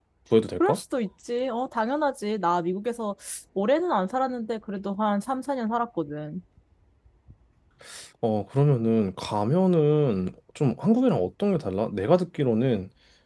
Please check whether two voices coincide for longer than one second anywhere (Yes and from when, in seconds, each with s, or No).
No